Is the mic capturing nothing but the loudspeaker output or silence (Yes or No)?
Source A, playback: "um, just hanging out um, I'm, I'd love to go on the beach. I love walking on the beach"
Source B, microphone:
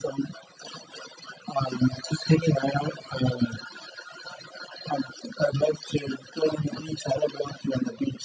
Yes